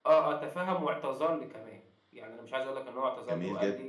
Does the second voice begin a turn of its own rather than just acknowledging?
No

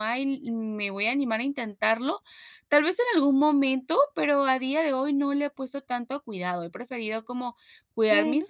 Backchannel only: Yes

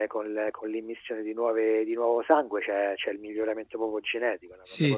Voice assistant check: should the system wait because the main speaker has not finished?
No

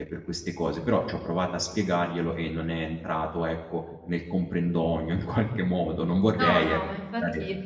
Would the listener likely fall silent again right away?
No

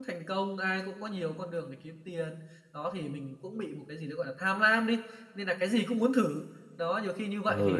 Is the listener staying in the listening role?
No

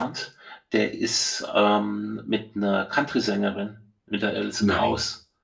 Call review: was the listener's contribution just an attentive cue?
Yes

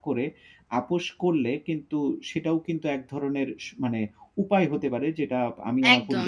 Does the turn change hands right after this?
Yes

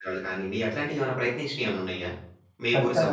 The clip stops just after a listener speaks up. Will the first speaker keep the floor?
No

